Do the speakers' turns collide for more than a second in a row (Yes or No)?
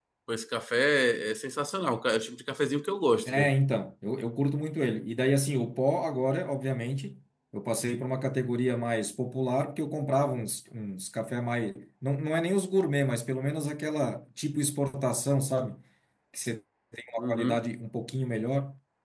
No